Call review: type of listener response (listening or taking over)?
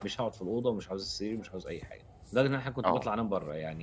listening